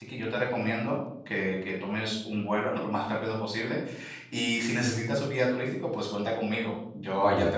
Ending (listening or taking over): taking over